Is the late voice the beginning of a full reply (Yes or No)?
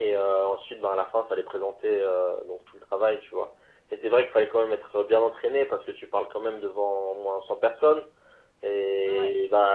No